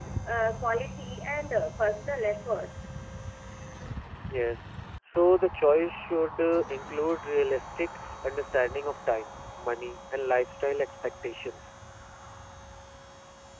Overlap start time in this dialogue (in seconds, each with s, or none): none